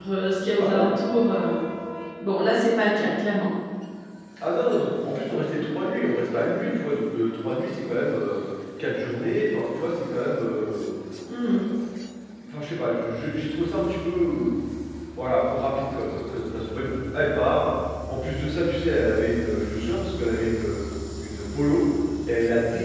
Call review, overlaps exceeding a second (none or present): none